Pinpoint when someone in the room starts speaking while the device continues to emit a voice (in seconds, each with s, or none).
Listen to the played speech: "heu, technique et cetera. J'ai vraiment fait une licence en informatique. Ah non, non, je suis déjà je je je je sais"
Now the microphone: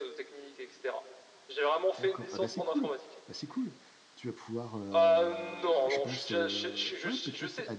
2.0 s